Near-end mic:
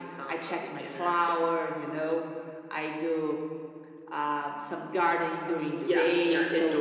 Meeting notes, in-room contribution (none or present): present